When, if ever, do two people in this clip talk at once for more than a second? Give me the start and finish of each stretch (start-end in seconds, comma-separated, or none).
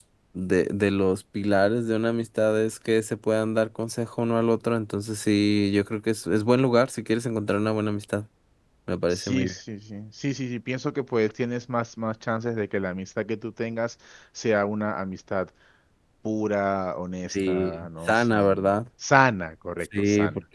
17.3-18.7